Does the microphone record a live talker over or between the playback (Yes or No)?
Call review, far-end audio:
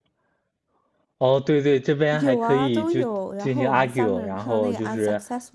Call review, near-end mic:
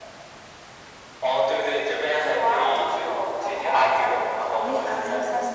Yes